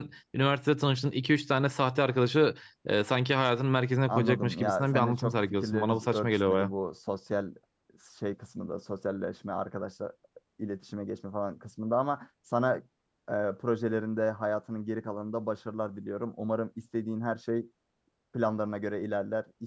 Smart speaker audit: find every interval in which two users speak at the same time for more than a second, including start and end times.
4.1-6.7

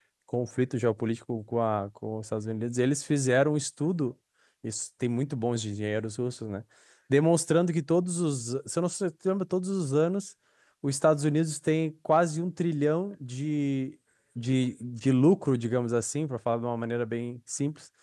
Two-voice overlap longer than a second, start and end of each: none

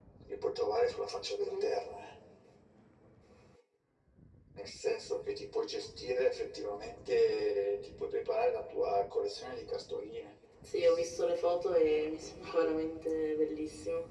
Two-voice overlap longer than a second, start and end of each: none

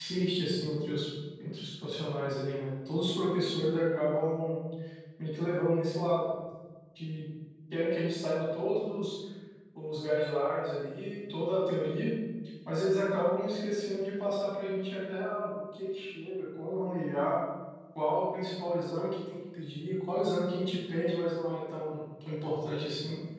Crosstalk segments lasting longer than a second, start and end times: none

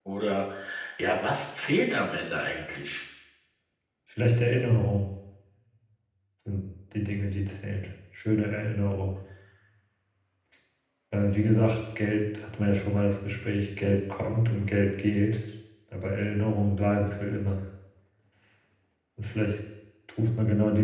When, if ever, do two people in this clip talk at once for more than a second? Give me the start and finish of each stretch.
none

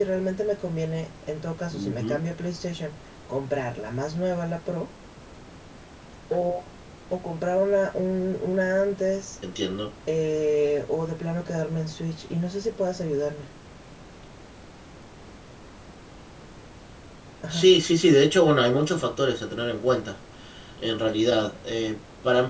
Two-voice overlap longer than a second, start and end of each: none

